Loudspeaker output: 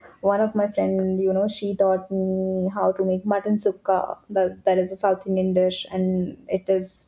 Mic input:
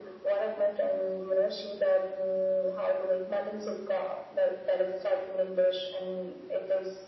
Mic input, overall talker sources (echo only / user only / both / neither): echo only